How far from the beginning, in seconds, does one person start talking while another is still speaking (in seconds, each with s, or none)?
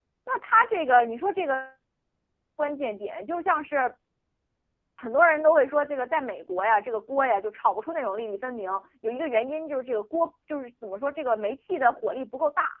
none